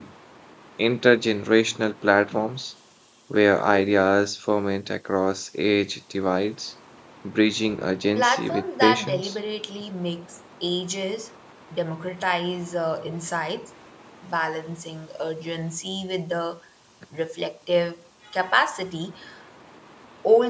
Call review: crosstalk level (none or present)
present